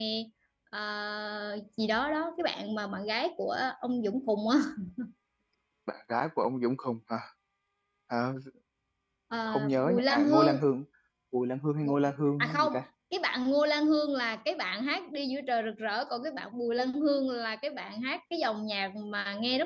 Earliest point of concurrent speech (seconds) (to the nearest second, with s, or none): 9 s